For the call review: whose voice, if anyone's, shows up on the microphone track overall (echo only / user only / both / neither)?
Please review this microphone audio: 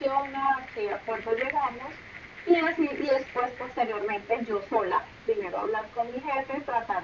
echo only